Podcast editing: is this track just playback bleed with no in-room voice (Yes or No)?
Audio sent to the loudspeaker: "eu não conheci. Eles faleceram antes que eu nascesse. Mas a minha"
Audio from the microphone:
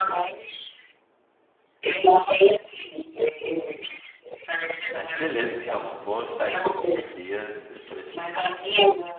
No